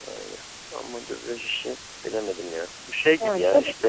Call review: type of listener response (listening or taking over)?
listening